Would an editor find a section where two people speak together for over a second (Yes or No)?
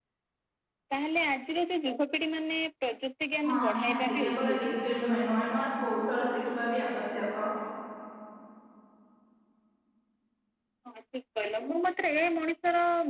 Yes